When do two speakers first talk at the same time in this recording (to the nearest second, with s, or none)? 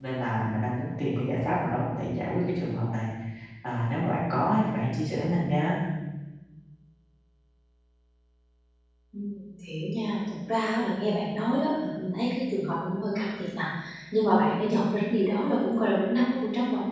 none